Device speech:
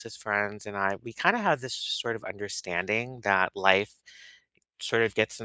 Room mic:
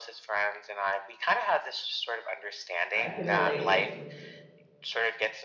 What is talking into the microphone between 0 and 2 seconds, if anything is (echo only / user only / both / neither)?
echo only